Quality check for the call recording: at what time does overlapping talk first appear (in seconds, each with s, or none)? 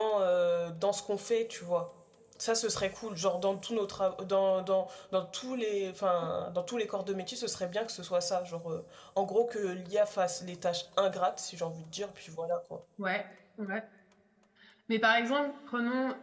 none